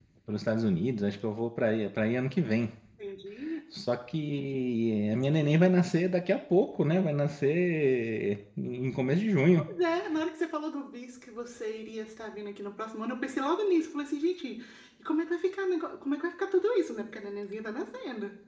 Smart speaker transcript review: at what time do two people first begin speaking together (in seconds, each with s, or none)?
none